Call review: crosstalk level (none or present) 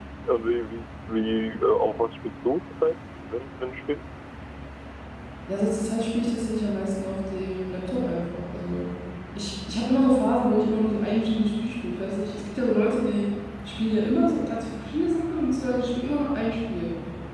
none